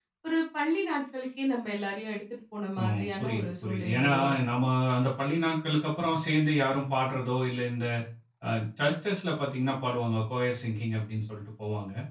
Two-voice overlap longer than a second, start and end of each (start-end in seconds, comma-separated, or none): 2.8-4.1